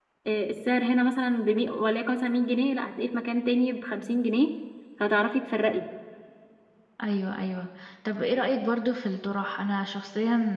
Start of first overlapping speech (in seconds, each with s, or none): none